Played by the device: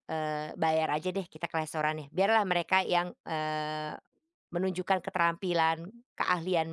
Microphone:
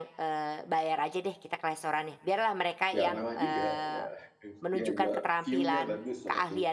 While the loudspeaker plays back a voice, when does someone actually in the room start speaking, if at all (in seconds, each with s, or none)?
2.9 s